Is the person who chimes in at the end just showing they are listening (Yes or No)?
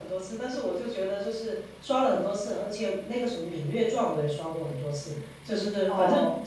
Yes